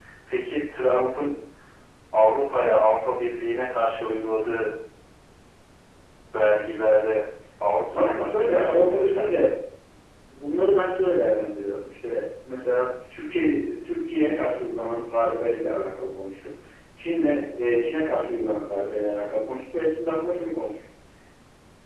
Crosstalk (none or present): present